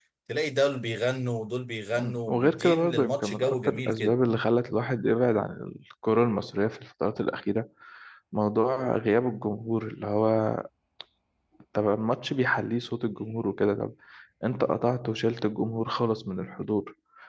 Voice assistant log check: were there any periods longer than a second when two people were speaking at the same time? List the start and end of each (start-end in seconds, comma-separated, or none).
2.0-4.2